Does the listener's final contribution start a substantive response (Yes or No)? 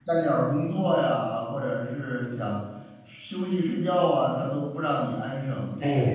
Yes